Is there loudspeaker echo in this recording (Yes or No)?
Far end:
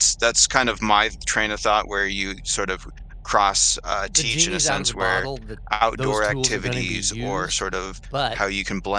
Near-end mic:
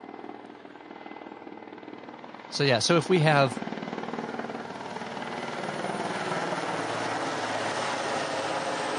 No